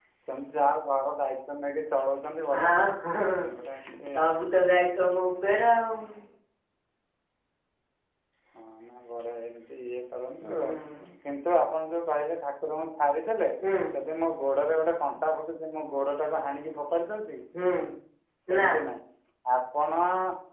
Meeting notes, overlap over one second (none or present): none